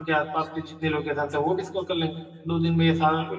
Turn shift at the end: No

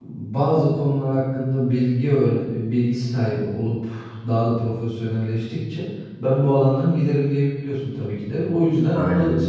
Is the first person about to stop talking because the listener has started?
No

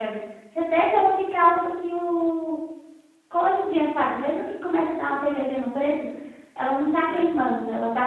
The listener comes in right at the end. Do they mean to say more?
No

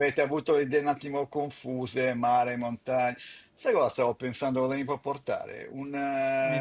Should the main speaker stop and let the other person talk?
No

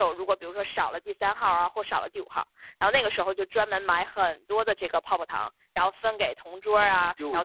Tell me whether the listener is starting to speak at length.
No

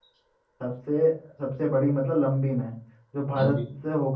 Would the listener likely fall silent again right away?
Yes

